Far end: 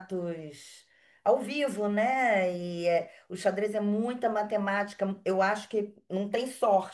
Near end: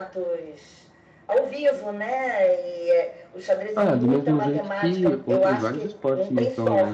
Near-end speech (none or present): present